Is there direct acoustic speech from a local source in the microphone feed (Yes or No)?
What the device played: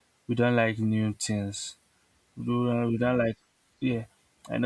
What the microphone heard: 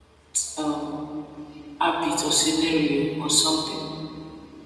Yes